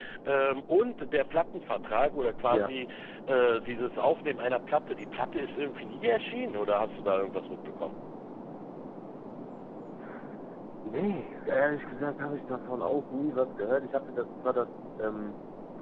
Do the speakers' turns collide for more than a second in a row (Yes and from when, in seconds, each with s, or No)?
No